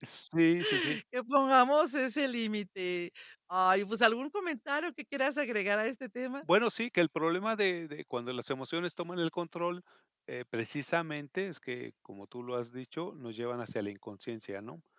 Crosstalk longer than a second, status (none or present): none